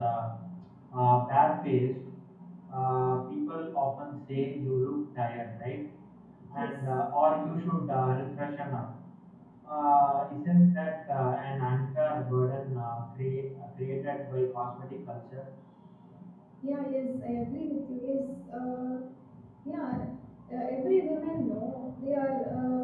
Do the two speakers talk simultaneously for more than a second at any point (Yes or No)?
No